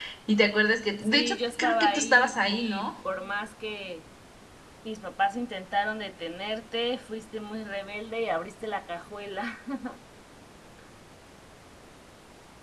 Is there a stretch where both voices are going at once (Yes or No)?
Yes